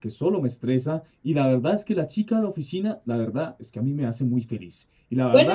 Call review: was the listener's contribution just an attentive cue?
No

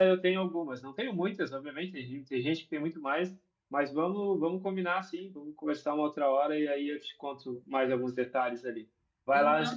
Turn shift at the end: Yes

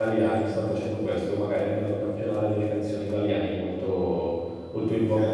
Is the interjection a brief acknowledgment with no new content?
Yes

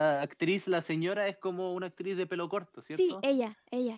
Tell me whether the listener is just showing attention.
No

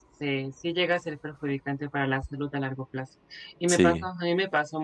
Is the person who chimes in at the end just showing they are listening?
Yes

